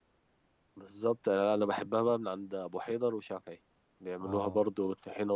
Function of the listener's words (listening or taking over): listening